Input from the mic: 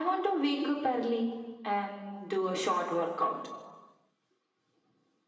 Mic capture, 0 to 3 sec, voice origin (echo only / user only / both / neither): echo only